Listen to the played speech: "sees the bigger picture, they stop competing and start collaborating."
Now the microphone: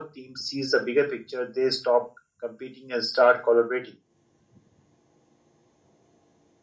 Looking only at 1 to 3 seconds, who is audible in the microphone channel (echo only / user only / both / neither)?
echo only